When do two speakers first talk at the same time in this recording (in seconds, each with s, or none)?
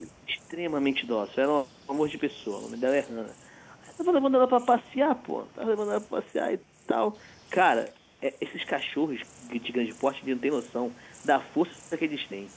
none